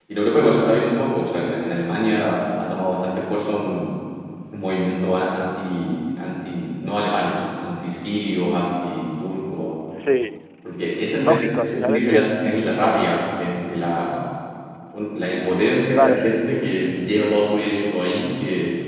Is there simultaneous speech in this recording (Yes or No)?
Yes